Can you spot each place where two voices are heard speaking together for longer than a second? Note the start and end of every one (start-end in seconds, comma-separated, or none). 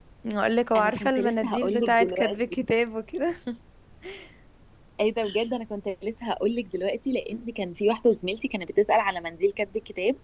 0.8-2.6